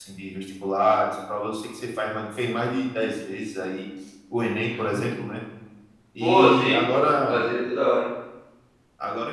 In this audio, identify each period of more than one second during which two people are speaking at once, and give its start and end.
6.2-7.4

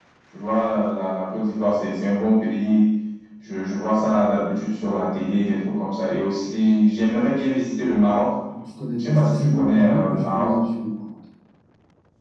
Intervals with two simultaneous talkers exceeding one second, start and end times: 9.0-10.5

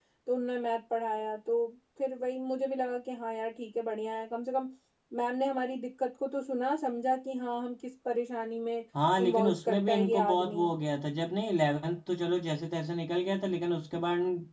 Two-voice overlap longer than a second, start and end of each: 9.2-10.6

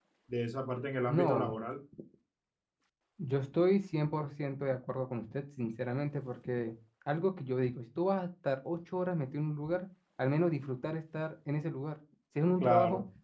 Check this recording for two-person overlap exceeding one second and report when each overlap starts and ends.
none

